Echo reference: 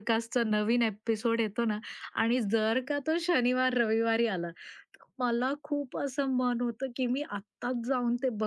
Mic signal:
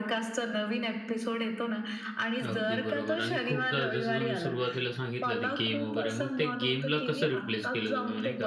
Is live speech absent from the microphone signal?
No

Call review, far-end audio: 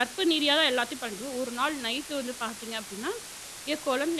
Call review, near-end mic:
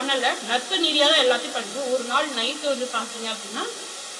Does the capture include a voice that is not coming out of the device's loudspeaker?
No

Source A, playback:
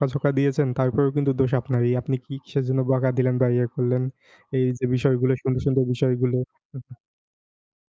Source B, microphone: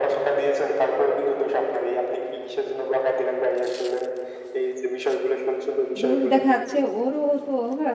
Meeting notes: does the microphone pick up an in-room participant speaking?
Yes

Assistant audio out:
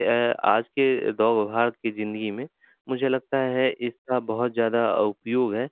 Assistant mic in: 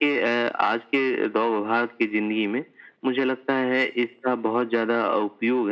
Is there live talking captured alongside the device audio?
No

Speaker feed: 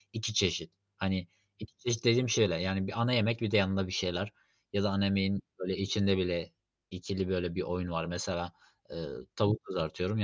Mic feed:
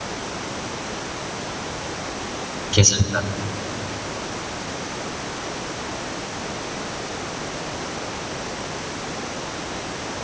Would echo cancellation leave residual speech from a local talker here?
Yes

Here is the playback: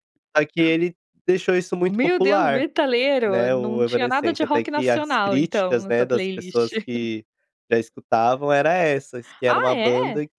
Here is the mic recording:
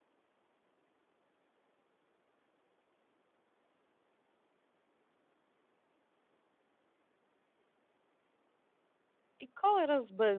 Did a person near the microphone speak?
Yes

